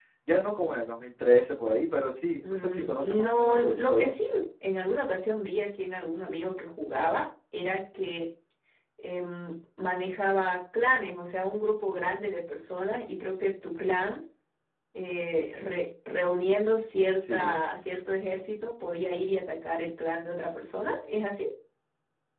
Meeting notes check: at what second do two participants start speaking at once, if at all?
2.5 s

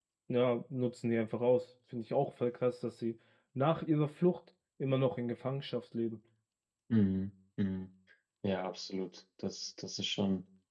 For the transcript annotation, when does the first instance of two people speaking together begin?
none

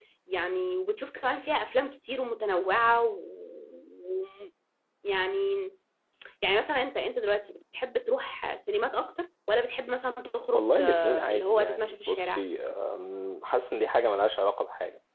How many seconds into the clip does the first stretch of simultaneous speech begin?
10.5 s

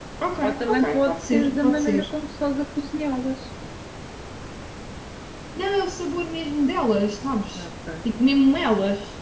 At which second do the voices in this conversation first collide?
0.7 s

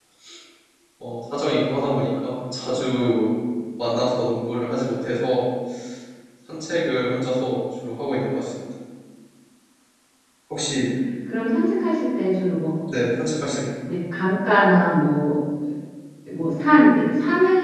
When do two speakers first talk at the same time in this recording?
none

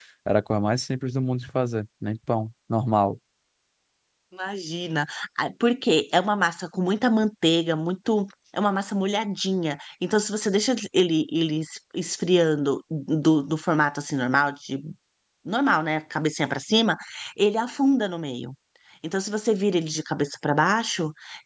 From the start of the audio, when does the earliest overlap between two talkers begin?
none

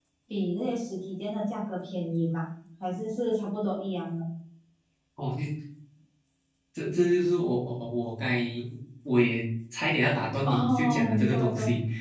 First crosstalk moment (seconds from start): 10.4 s

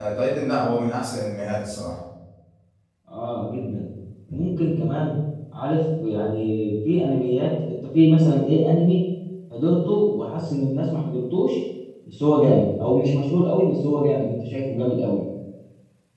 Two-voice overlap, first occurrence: none

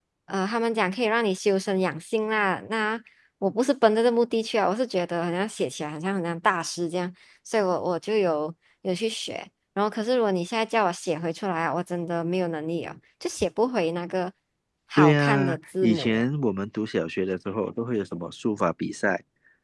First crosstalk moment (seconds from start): 15.0 s

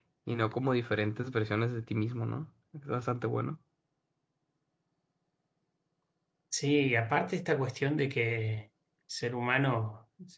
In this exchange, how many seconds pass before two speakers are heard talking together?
none

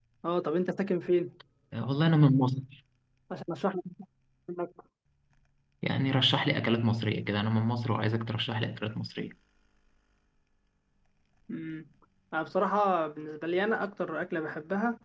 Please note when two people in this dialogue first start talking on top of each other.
none

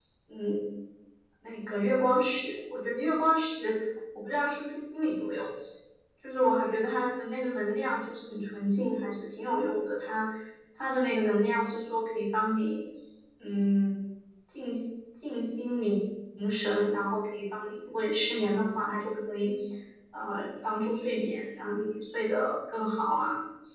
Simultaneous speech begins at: none

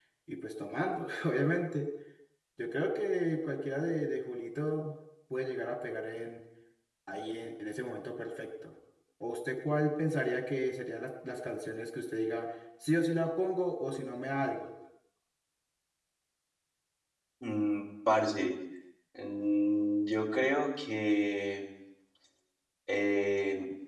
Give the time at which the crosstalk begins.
none

